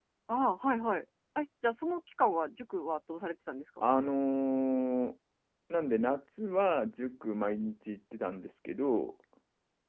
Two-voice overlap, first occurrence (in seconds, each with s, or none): none